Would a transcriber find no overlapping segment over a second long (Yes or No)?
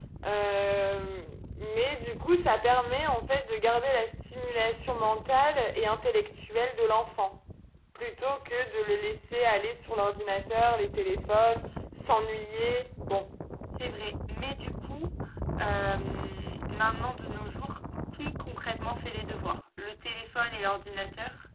Yes